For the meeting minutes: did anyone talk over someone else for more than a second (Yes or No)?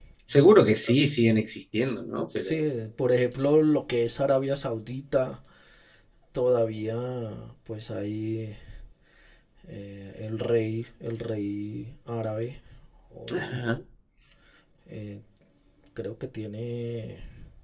No